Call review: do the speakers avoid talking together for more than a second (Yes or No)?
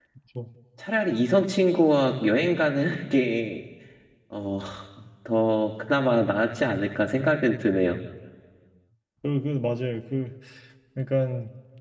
Yes